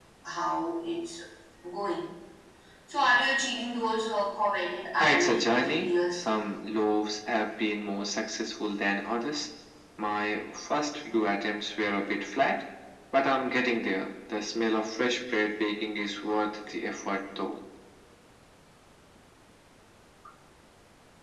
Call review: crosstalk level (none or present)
present